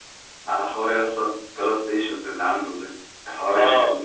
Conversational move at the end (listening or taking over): listening